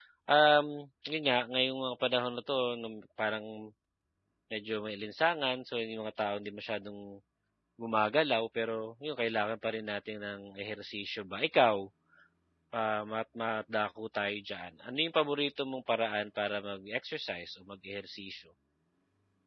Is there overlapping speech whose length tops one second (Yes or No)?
No